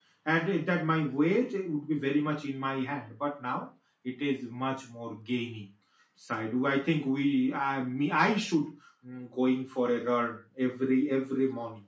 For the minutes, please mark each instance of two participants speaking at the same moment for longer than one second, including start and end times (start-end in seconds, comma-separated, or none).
none